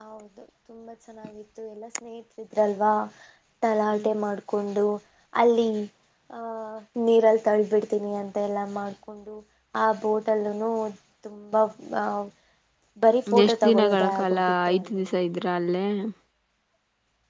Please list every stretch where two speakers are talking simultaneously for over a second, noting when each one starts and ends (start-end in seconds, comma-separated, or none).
13.4-14.9